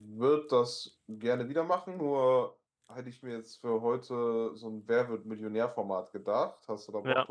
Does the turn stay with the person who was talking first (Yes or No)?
No